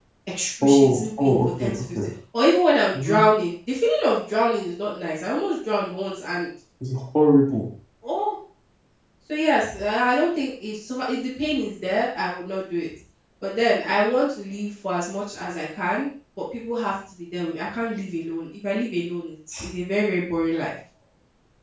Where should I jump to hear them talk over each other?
1 s

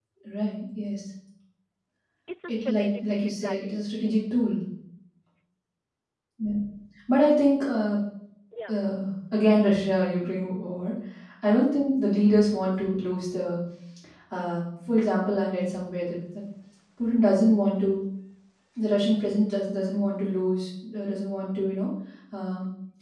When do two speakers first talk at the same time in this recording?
2 s

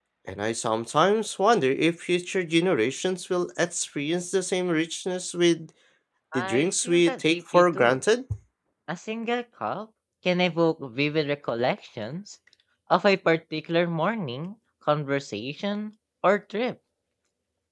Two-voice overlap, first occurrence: 6 s

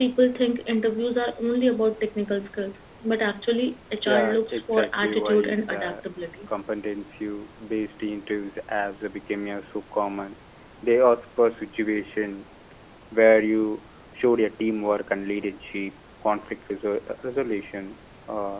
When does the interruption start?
4 s

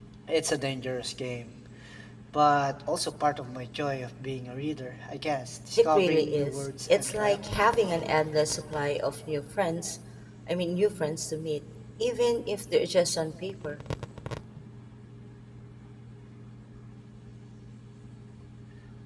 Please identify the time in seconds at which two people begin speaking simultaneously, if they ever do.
6 s

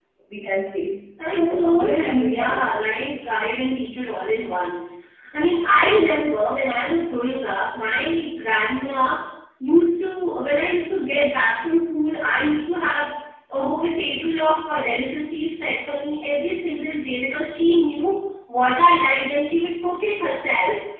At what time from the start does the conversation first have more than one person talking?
1 s

